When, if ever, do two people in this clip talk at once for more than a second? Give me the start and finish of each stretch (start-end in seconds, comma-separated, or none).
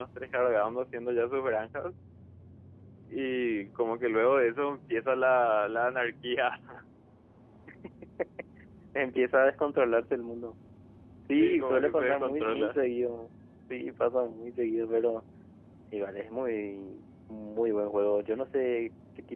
11.3-12.8